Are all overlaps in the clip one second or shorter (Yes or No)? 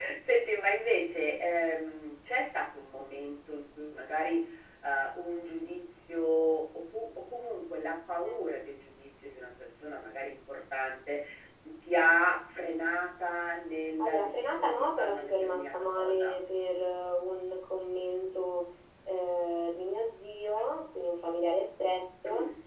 No